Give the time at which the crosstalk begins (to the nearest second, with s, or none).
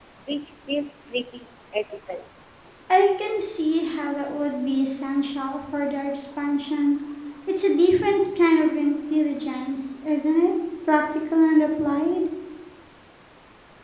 none